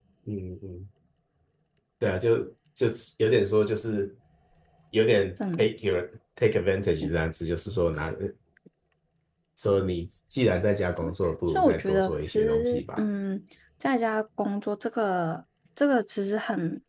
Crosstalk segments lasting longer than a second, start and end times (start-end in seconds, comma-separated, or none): 11.5-13.0